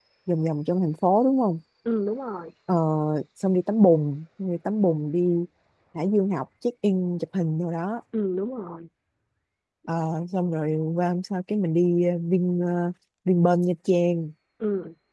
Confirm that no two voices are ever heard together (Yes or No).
Yes